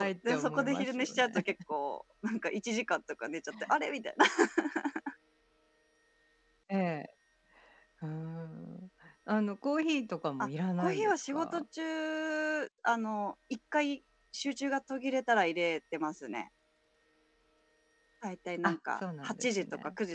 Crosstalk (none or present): present